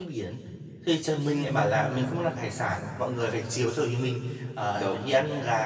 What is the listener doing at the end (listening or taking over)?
listening